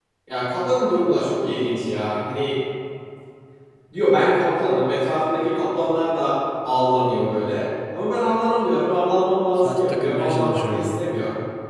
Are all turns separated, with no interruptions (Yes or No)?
No